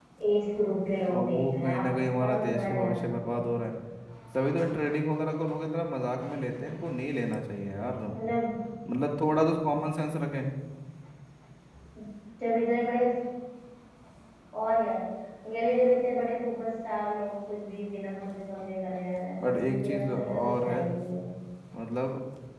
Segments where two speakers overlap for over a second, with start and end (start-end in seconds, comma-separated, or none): 0.9-3.4, 19.4-20.8